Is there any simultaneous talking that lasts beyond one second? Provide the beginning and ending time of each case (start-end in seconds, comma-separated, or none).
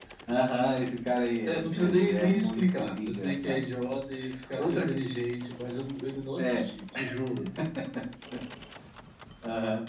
1.4-3.6